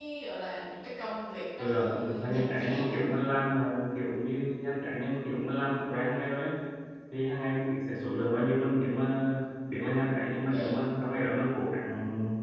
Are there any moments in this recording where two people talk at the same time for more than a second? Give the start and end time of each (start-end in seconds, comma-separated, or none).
1.6-3.1